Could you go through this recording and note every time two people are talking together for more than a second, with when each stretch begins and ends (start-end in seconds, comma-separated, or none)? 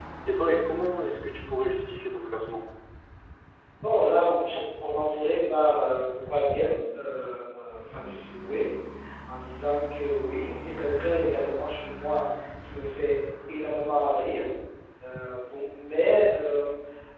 none